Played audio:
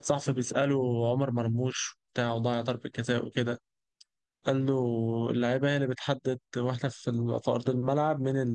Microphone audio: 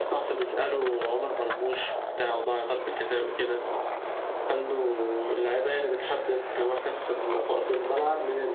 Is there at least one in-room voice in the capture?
No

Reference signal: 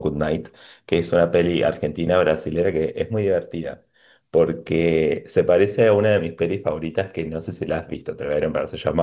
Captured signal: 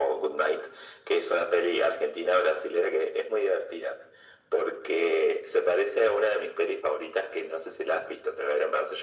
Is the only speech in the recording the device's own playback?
Yes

